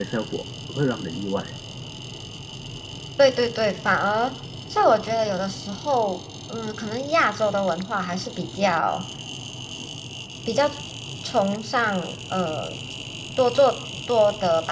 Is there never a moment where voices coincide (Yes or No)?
Yes